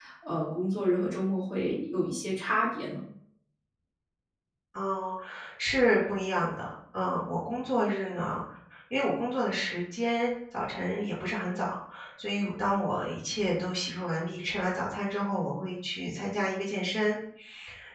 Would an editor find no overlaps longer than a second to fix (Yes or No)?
Yes